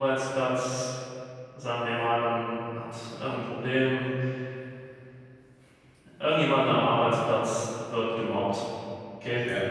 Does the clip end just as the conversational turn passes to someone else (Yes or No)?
No